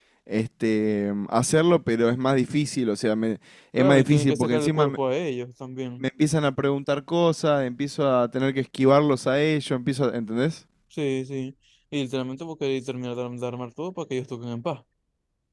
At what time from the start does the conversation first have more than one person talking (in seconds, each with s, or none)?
3.8 s